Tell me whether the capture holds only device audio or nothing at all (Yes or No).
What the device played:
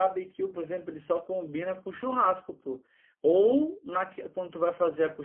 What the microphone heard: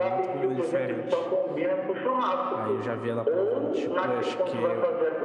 No